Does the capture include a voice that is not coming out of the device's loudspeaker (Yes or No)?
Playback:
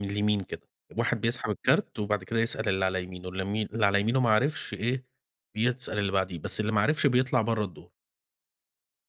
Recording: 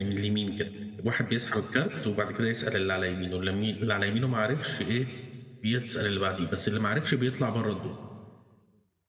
No